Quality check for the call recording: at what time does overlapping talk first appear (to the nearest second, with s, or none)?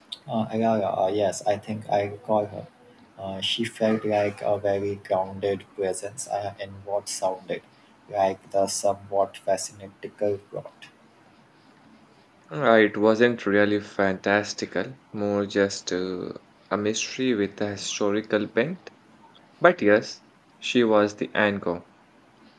none